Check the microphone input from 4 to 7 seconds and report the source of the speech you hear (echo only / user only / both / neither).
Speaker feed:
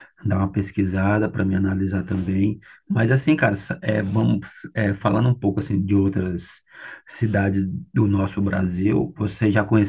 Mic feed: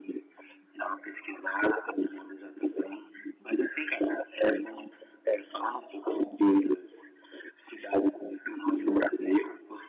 echo only